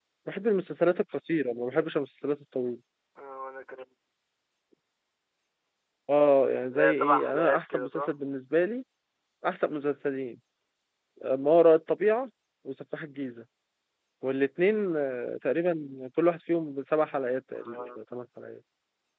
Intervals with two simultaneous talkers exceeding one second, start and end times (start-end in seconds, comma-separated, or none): 6.7-8.1